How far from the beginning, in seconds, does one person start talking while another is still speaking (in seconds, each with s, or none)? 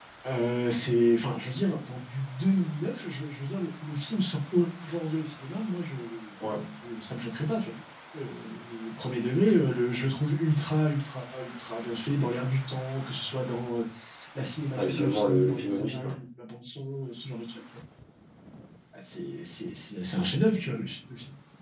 14.8 s